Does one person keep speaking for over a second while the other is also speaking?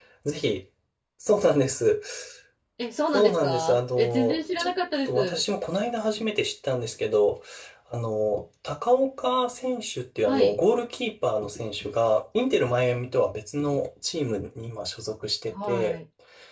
Yes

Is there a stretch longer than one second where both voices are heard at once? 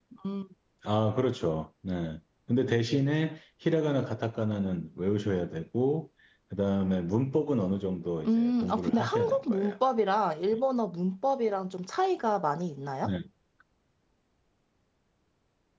Yes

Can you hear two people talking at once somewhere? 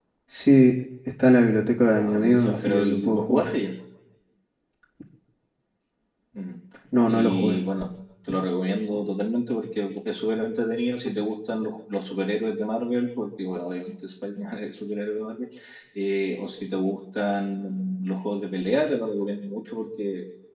Yes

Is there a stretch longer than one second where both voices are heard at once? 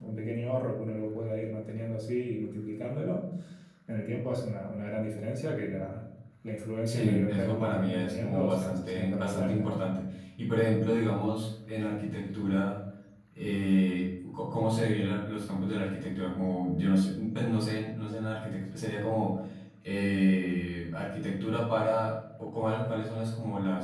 Yes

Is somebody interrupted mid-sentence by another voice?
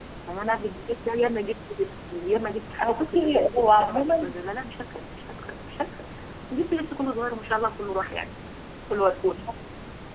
Yes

